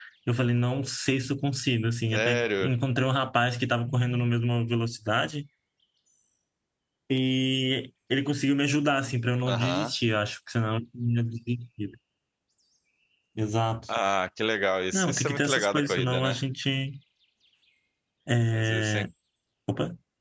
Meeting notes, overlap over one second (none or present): present